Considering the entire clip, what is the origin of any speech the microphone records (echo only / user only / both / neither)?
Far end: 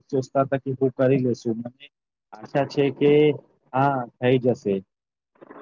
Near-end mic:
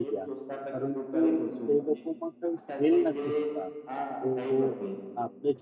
both